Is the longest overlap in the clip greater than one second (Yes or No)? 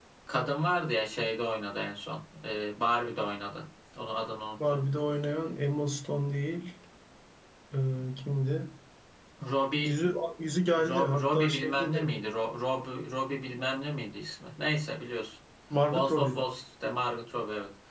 Yes